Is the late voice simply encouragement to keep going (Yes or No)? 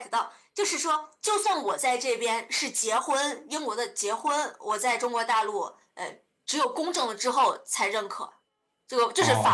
No